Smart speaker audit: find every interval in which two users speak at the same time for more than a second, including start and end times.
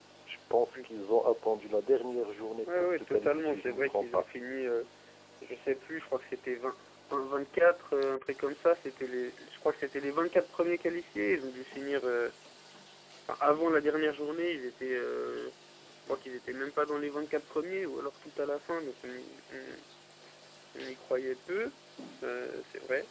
2.7-4.2

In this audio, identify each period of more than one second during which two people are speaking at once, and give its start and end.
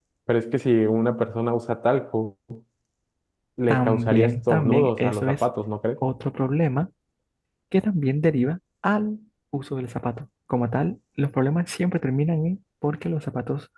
3.7-5.4

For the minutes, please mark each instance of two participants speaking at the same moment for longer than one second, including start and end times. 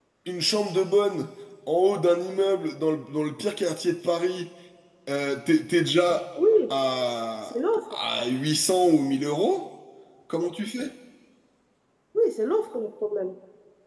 none

